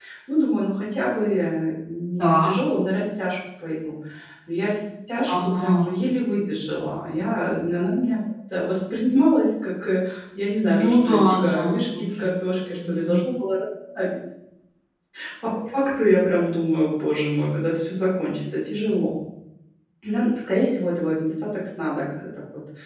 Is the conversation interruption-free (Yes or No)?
No